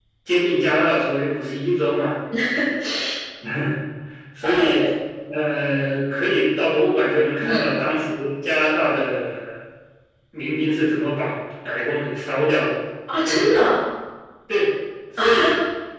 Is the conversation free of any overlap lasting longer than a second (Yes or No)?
Yes